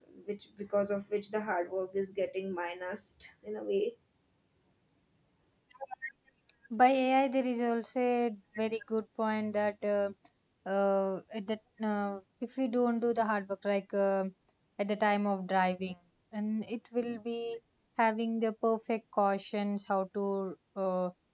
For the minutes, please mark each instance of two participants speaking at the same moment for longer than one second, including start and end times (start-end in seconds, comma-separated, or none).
none